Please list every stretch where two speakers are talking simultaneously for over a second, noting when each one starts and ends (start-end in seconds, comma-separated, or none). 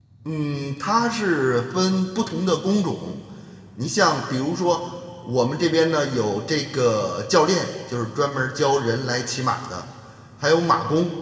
none